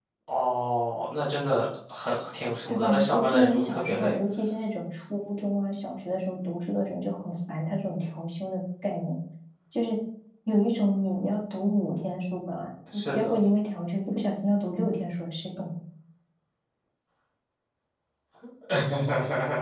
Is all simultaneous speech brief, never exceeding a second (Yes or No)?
No